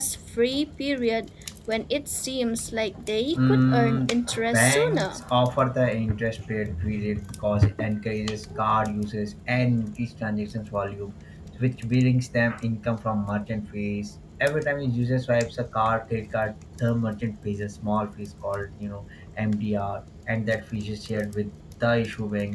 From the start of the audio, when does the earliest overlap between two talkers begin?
3.4 s

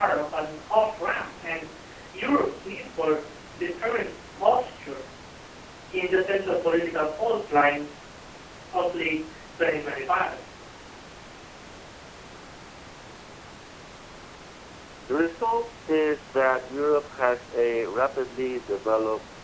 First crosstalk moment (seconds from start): none

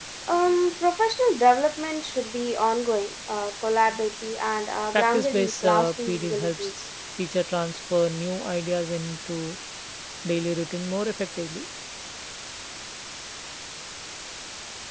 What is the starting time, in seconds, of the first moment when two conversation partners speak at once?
4.9 s

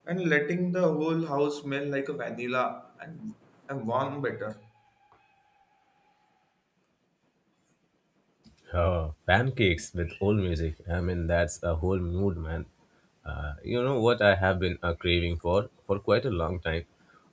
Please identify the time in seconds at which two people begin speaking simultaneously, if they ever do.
none

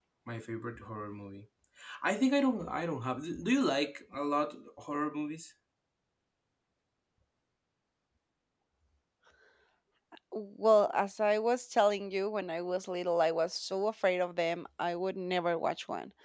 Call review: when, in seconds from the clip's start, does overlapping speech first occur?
none

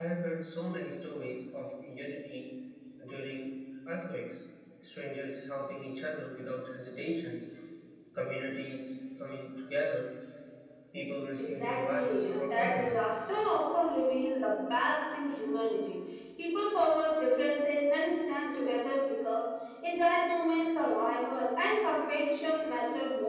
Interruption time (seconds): 11.4 s

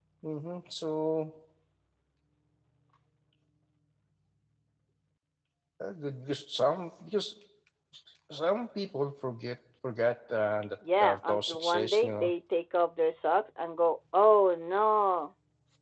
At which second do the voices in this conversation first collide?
10.8 s

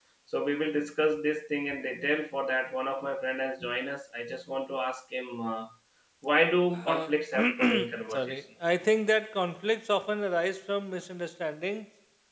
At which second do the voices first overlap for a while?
6.9 s

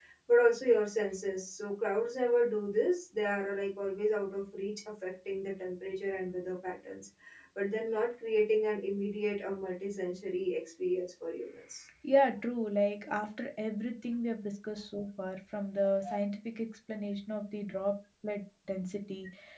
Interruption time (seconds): none

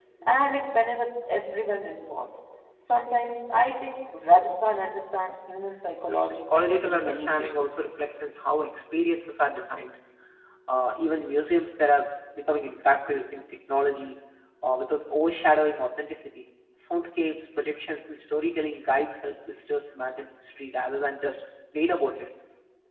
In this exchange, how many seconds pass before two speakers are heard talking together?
6.0 s

